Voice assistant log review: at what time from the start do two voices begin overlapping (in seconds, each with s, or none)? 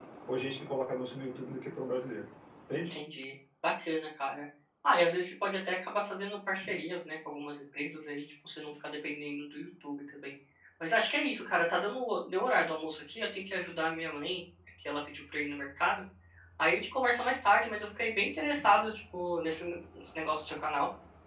none